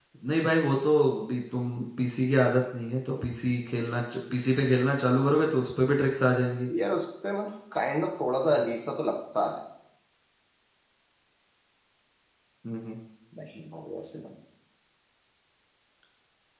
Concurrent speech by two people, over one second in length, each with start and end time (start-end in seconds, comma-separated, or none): none